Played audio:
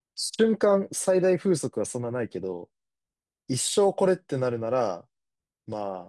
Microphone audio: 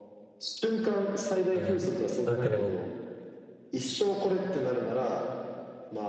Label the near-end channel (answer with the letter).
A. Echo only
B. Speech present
B